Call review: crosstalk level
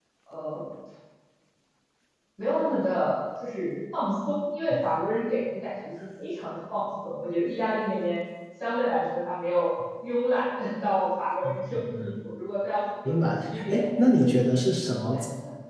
present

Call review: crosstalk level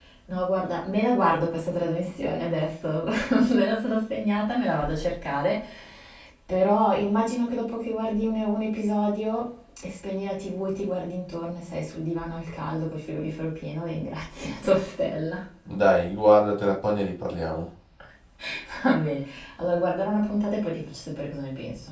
none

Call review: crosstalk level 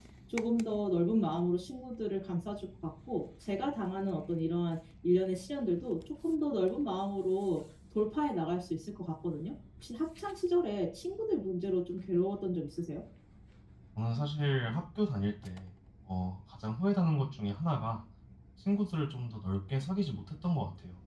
none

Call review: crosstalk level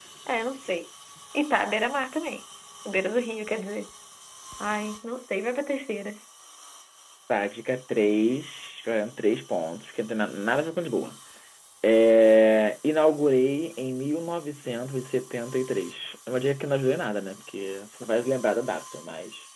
none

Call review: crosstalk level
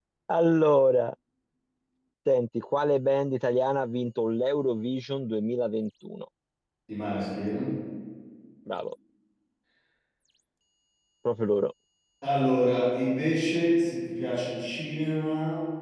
none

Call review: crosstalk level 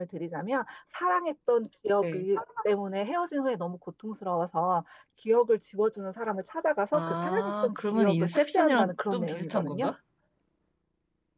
present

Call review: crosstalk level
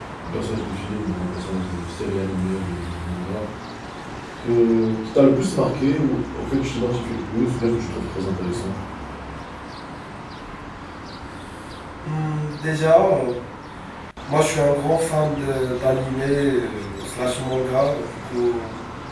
none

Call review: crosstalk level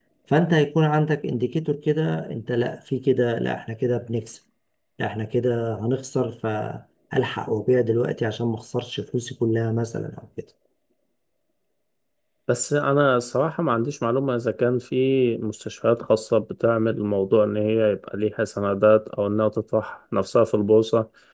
none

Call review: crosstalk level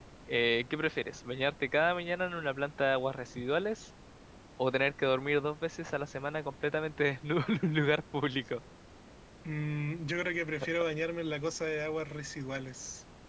none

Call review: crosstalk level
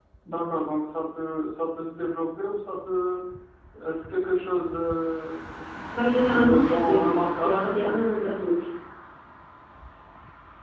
present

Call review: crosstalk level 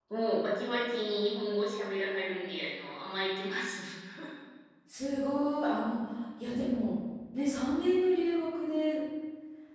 none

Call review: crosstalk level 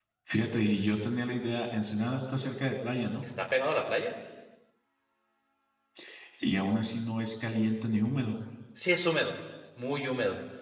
none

